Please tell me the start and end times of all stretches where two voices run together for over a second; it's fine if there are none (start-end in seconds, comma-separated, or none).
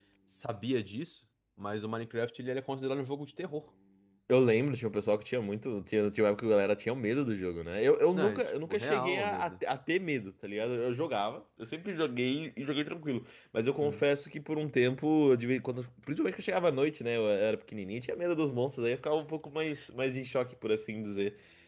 8.1-9.5